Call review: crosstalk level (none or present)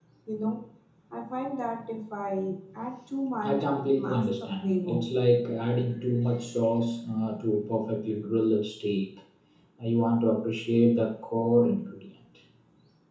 present